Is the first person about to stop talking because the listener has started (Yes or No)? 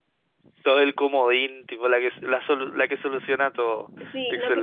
Yes